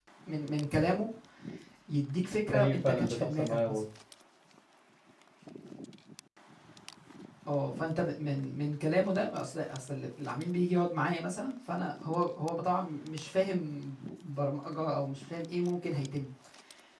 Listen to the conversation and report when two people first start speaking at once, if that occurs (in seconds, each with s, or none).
2.5 s